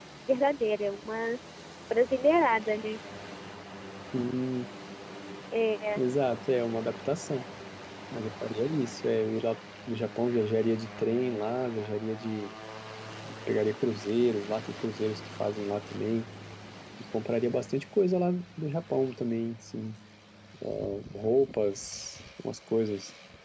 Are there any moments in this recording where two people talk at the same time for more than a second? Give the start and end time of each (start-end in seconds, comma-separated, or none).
none